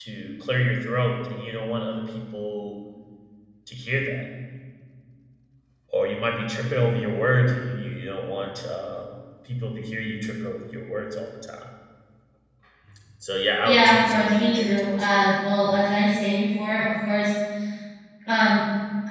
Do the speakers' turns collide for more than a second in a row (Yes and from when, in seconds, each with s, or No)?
Yes, from 13.6 s